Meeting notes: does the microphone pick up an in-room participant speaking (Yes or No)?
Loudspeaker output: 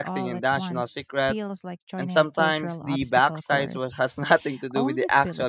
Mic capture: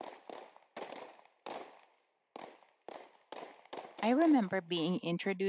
Yes